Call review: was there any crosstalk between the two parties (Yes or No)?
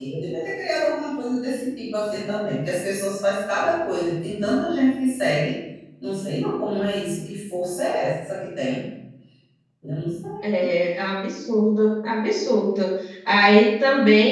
No